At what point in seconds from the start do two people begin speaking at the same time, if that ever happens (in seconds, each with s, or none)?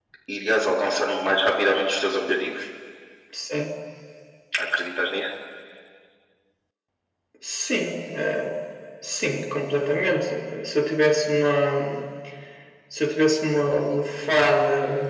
none